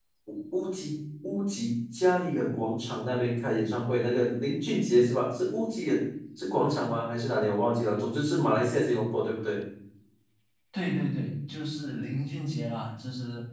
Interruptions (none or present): none